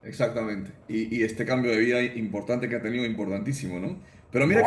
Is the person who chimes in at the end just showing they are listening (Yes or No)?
Yes